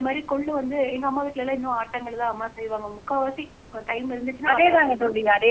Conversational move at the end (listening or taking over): taking over